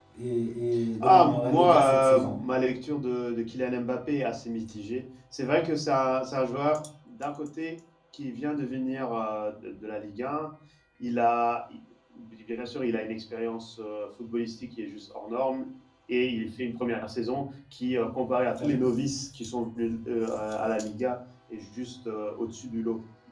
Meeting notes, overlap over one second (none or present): present